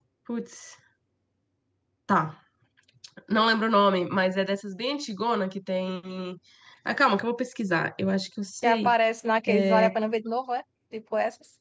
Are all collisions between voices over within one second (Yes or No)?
Yes